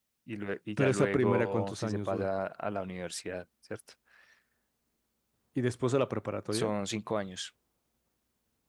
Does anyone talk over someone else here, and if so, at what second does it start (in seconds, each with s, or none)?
0.8 s